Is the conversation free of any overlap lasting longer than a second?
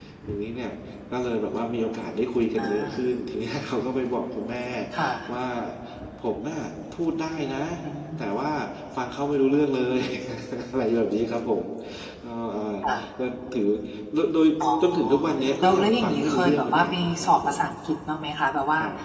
No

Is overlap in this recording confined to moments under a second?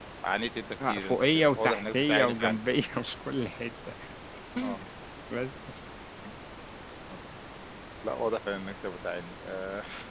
No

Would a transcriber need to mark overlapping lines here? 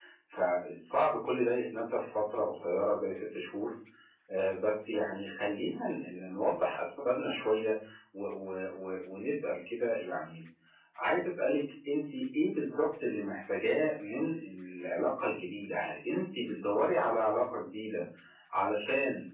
No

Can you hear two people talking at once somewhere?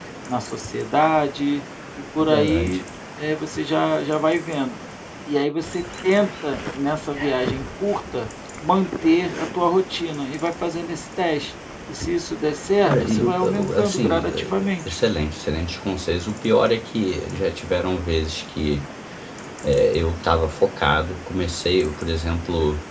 Yes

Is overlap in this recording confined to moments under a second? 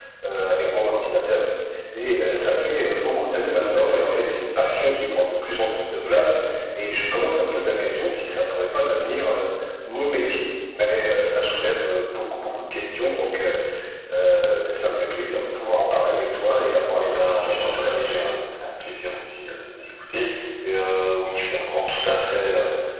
No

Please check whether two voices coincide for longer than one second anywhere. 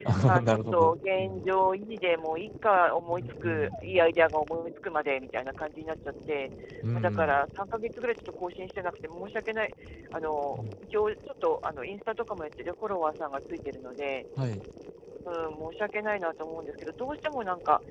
Yes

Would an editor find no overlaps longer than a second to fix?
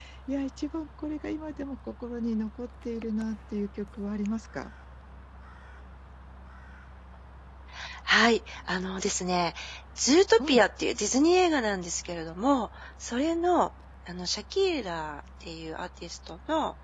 Yes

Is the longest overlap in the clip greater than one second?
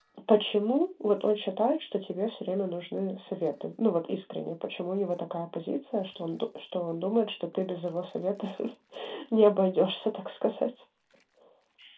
No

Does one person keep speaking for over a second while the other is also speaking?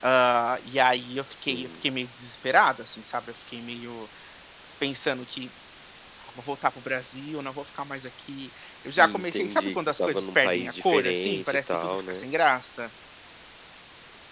Yes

